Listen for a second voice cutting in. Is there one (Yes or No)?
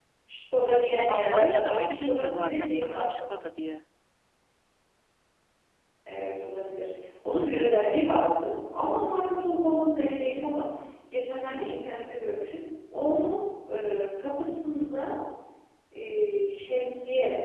Yes